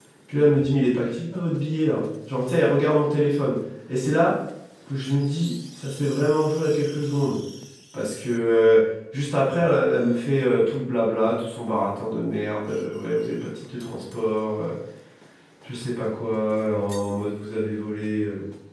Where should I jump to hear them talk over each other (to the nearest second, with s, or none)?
none